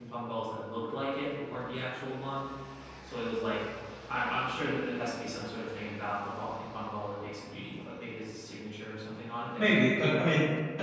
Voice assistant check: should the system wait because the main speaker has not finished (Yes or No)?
No